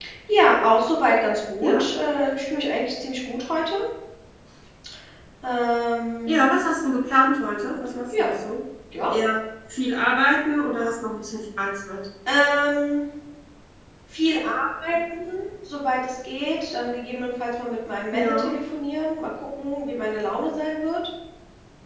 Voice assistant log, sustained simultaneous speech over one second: none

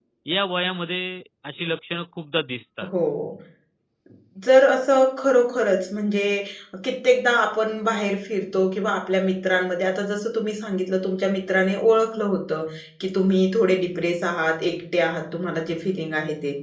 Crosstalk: none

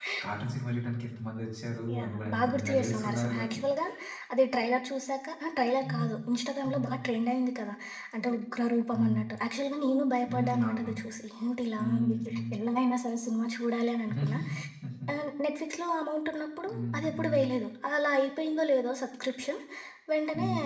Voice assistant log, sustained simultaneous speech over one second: present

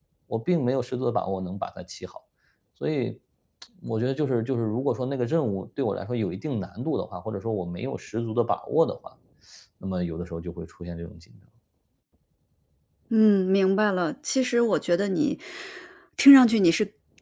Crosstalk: none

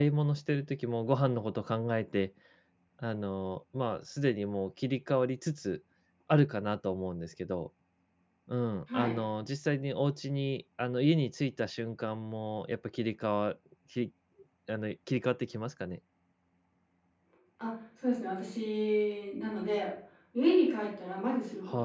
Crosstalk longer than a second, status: none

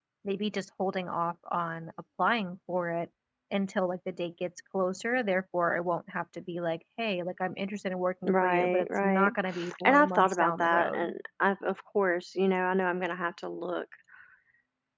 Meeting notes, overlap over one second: present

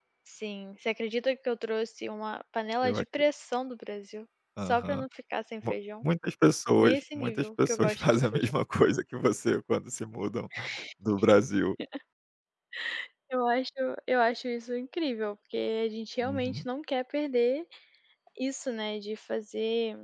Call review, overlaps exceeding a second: present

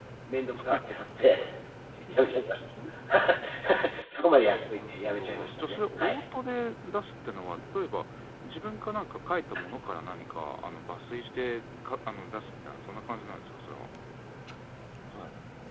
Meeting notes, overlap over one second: present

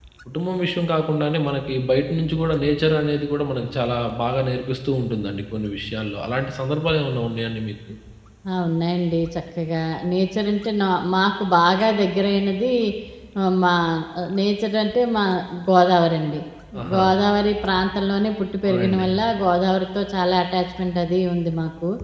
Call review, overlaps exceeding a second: none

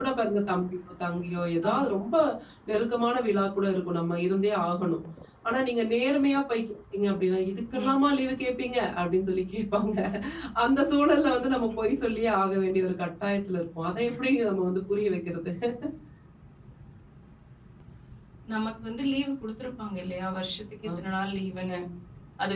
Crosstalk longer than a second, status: none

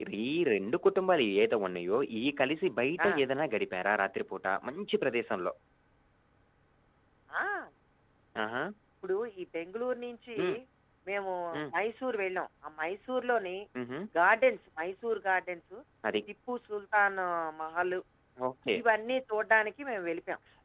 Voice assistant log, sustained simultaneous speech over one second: none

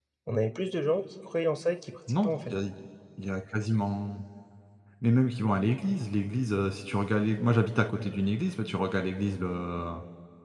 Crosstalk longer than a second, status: none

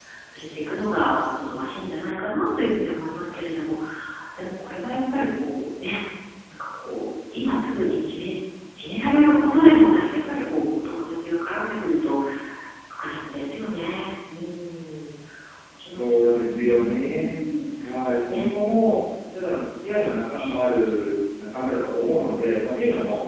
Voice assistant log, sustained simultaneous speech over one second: present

